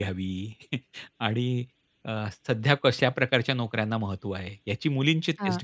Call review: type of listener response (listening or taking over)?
listening